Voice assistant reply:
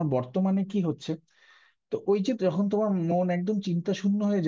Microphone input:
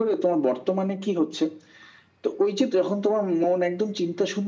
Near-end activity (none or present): none